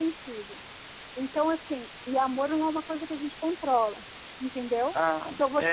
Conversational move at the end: listening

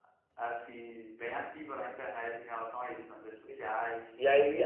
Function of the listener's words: taking over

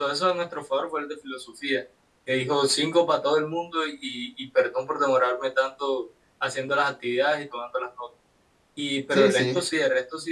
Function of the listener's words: listening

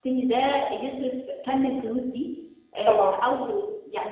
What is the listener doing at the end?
listening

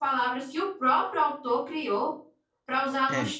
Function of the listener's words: listening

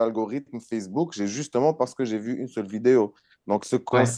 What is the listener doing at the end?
listening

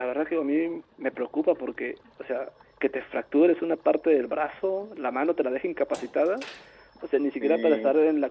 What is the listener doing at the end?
listening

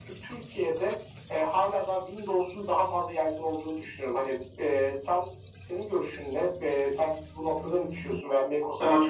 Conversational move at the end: taking over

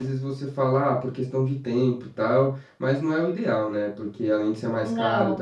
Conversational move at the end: listening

